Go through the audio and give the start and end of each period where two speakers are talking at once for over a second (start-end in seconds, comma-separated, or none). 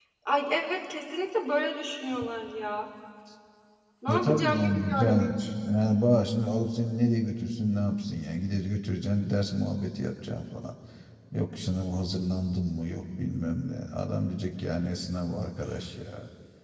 4.1-5.3